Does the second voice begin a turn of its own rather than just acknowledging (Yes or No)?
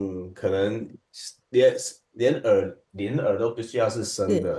No